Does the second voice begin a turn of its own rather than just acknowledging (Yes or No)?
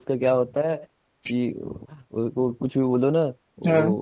No